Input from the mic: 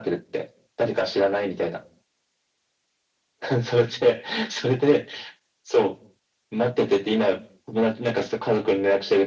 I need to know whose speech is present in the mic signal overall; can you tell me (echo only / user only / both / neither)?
echo only